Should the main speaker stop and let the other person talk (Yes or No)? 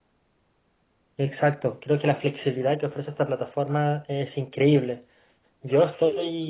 No